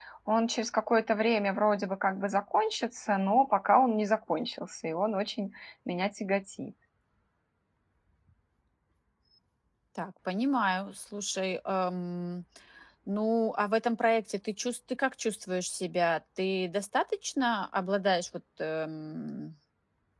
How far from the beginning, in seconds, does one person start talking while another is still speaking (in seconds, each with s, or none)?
none